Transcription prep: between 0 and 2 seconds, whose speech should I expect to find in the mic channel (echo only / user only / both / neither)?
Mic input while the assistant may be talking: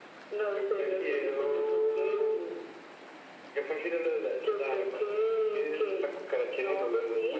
echo only